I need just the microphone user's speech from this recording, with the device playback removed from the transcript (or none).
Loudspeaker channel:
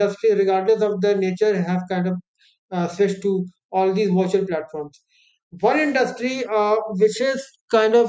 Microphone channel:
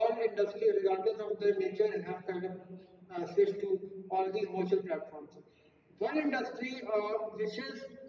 none